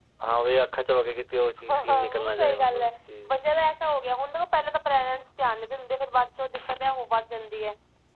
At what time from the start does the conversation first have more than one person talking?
2 s

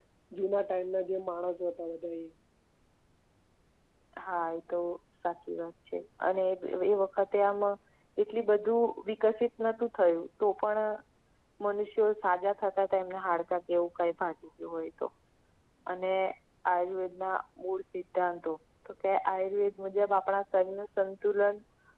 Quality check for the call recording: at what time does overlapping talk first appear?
none

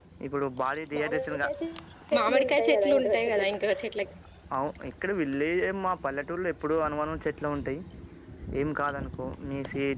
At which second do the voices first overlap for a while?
2 s

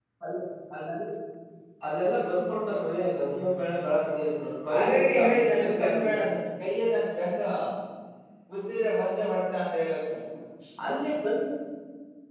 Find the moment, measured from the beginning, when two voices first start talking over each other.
5 s

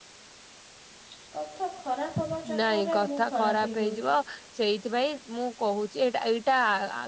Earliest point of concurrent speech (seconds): 2 s

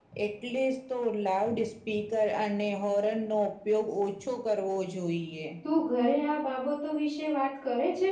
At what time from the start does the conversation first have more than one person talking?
none

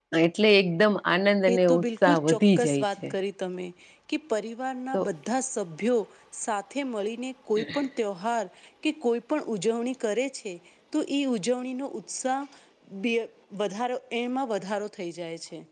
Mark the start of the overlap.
1 s

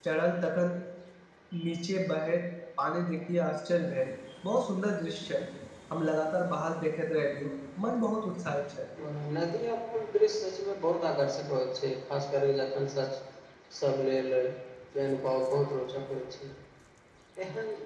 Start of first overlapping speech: none

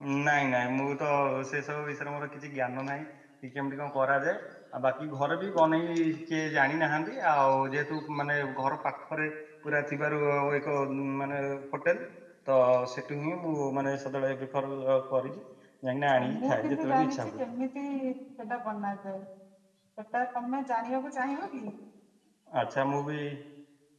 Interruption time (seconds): 16 s

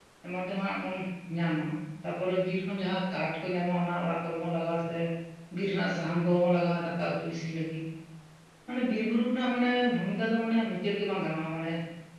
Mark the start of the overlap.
none

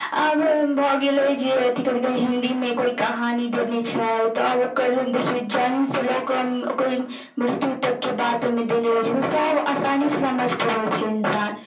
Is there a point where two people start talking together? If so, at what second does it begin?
none

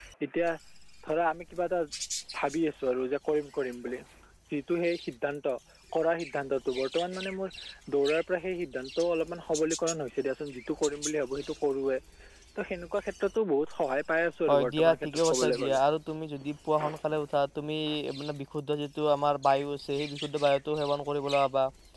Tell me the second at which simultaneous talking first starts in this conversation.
14 s

